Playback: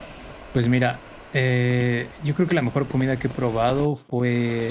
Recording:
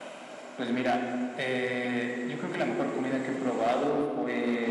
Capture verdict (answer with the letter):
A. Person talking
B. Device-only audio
B